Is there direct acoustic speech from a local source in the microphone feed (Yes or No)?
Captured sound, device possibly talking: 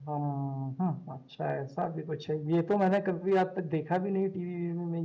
Yes